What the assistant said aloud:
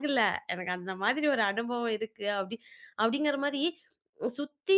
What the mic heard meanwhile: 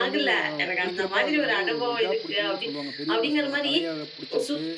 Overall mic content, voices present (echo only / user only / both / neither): both